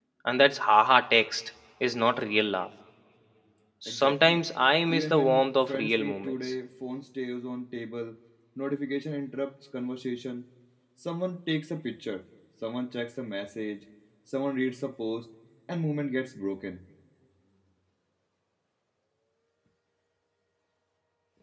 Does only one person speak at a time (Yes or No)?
No